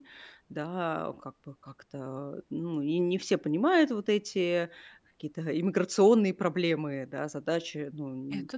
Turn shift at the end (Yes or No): No